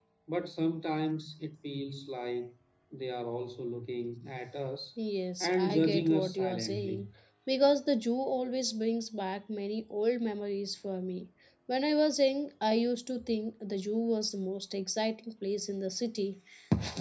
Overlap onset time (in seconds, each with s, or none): 5.4 s